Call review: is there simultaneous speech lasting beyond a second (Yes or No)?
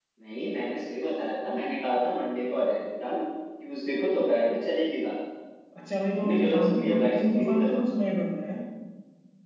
Yes